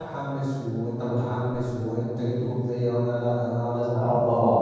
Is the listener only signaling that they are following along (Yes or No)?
No